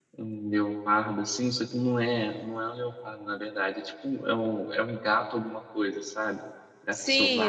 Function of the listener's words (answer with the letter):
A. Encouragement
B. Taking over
B